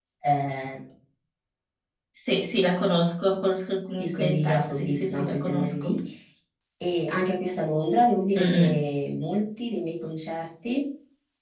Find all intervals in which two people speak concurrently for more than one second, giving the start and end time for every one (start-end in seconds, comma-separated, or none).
4.0-6.0